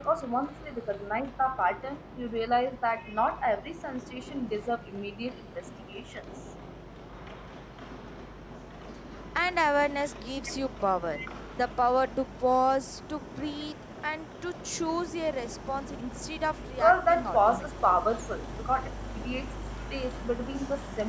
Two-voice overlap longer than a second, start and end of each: 16.8-18.1

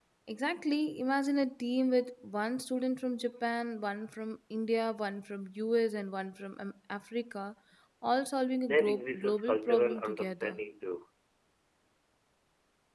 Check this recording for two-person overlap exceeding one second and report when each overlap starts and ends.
8.6-10.6

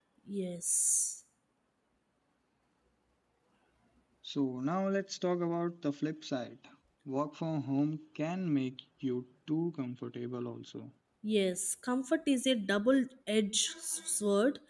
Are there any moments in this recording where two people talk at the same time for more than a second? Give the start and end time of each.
none

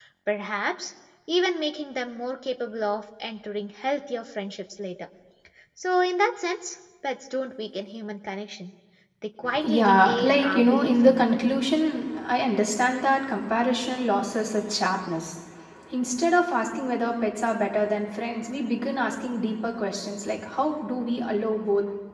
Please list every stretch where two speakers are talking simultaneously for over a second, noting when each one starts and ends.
9.6-11.2

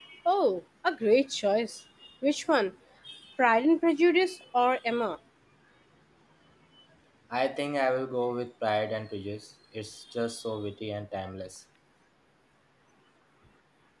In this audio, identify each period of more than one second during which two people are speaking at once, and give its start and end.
none

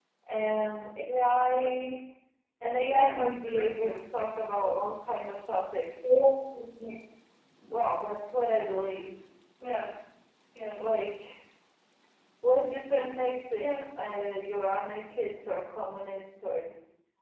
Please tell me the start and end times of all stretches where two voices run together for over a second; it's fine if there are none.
2.9-4.3

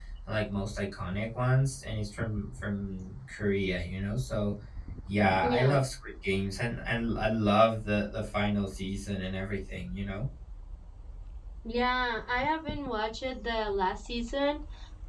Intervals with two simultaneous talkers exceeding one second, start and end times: none

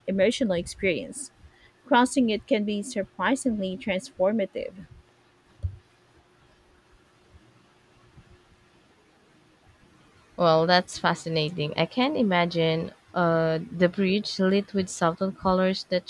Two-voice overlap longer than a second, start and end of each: none

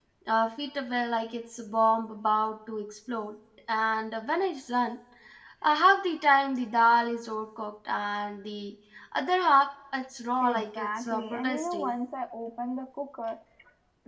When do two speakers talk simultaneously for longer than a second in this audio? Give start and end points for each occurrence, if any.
10.4-11.9

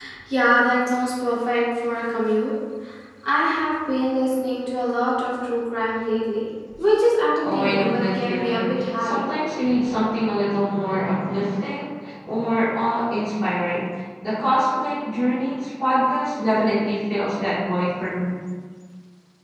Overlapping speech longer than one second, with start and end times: 7.4-9.2

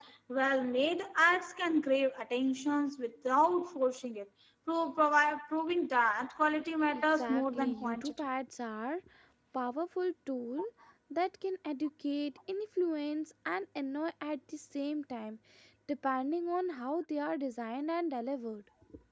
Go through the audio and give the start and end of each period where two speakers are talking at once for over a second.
6.9-8.1

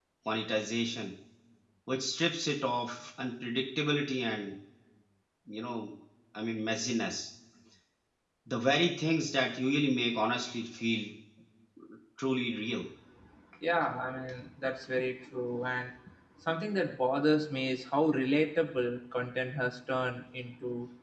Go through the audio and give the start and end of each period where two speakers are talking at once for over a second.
none

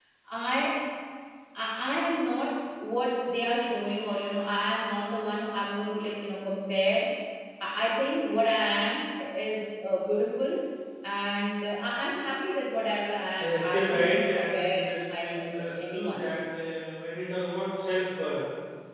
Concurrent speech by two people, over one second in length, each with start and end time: 13.4-16.2

